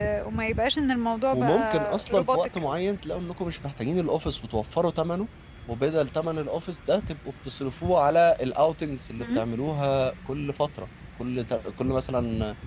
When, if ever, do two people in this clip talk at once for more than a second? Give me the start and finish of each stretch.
1.3-2.6

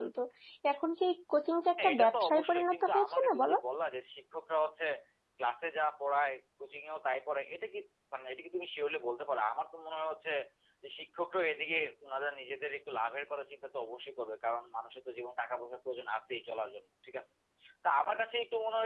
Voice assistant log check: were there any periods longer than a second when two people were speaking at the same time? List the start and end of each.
1.8-3.6

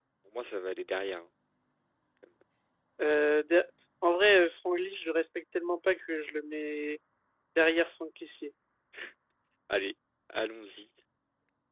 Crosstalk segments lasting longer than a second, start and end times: none

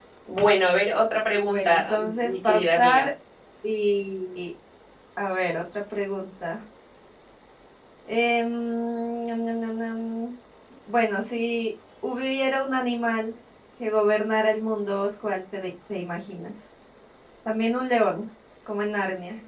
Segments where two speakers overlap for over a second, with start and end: 1.4-3.1

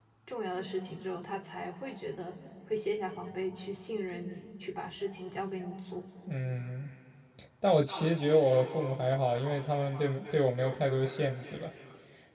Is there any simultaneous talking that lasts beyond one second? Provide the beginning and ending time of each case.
none

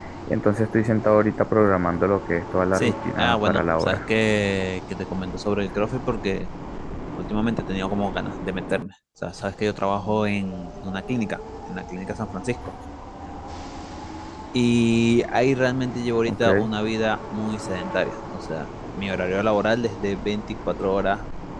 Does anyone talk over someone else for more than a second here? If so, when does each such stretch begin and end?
2.7-4.0

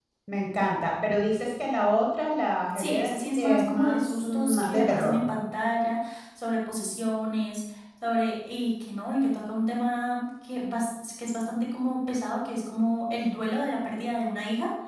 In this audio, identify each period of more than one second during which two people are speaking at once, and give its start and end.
2.8-5.2

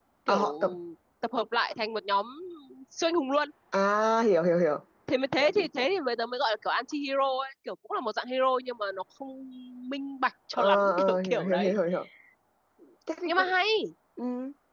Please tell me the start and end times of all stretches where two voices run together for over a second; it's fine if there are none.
10.5-11.8

